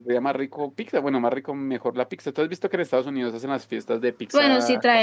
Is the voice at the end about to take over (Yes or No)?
Yes